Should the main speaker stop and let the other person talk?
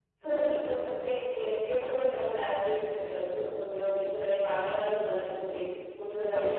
No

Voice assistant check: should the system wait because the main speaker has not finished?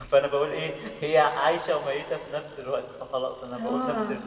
No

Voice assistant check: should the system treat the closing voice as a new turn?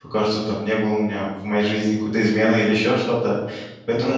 No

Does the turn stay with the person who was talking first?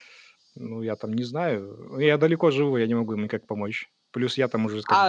No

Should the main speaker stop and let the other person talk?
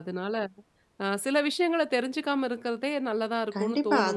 Yes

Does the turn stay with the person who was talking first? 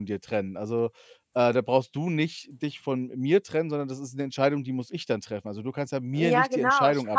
No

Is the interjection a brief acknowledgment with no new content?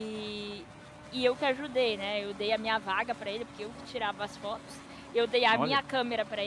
Yes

